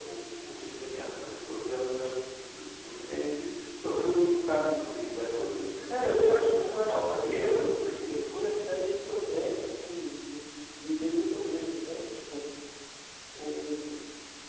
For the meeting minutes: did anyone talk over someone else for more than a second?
Yes, from 5.9 s

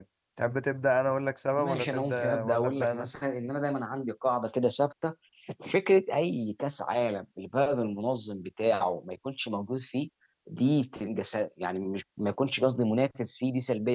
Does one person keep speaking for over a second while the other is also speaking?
Yes, from 1.6 s

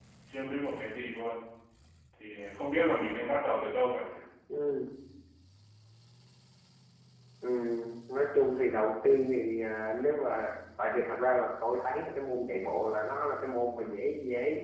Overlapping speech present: No

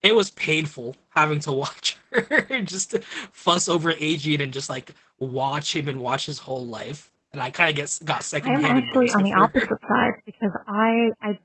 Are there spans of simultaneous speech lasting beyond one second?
Yes, from 8.4 s

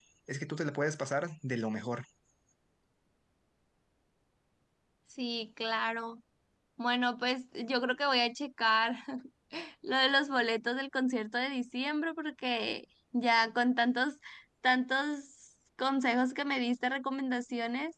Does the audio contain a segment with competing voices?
No

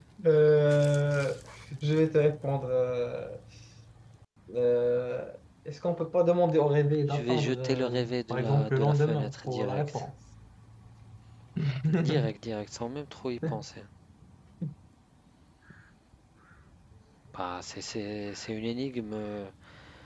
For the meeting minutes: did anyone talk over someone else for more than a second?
Yes, from 7.1 s

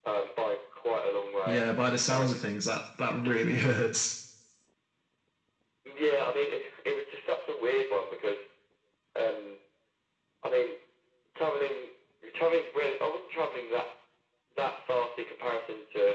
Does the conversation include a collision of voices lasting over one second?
No

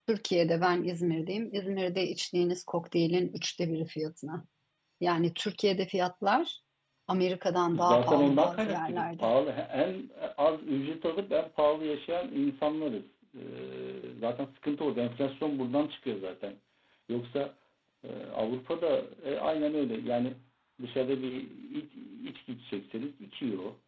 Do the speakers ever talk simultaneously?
Yes, from 7.7 s

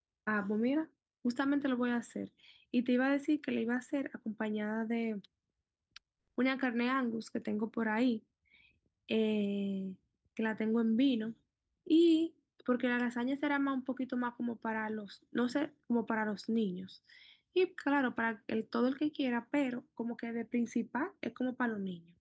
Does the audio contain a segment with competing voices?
No

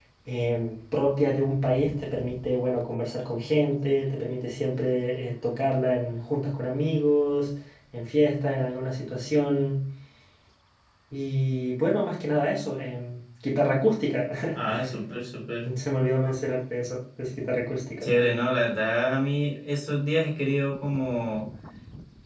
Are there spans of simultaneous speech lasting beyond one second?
No

